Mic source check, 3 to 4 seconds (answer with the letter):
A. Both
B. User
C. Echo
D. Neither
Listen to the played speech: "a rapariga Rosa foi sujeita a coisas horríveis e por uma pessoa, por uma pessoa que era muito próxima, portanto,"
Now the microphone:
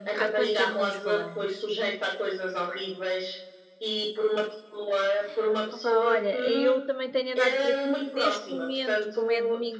C